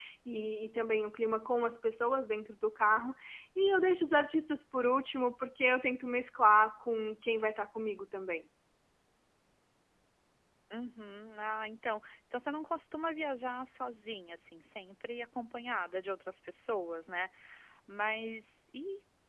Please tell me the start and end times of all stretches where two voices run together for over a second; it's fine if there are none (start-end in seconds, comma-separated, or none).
none